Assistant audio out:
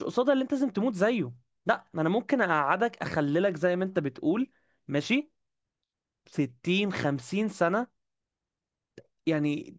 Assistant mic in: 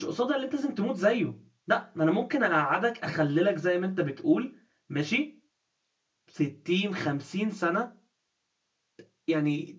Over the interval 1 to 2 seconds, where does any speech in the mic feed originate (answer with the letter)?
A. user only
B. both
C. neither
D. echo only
D